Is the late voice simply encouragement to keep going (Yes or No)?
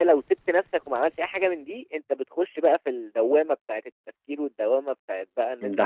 Yes